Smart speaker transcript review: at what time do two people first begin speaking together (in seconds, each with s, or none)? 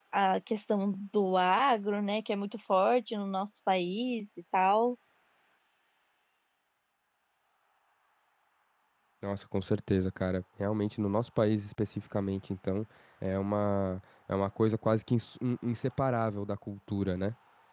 none